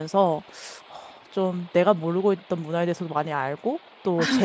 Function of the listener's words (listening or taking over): listening